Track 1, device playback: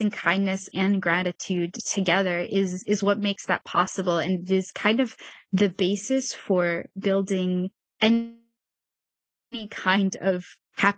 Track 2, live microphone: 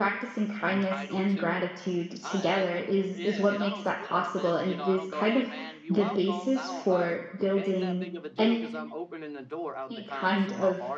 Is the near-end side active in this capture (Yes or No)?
Yes